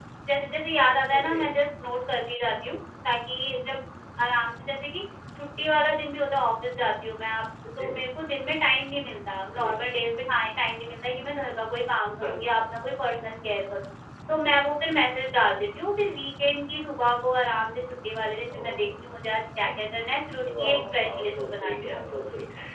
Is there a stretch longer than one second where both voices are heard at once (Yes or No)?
Yes